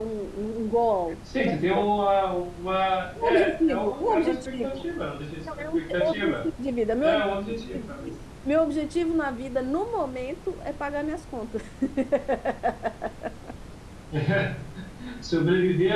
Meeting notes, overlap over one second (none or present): present